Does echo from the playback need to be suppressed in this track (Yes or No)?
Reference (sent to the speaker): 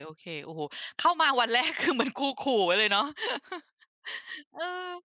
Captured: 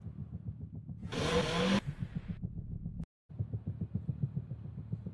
No